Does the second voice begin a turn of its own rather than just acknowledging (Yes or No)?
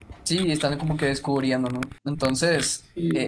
No